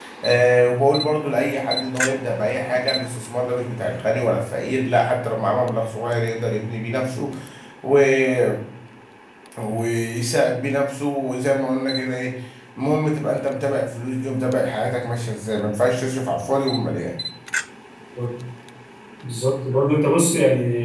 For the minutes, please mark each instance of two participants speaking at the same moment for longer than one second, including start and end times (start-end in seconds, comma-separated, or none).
none